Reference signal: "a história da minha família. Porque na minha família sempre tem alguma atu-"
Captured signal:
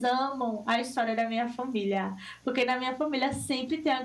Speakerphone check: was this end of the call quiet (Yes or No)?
Yes